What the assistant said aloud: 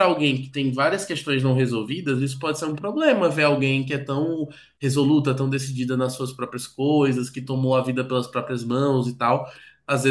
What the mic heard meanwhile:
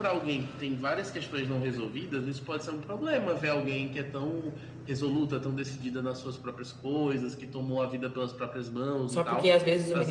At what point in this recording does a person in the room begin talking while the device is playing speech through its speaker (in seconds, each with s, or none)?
9.1 s